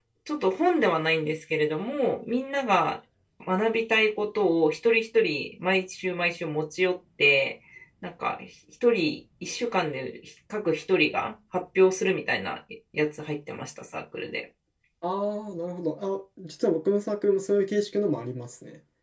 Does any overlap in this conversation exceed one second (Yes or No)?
No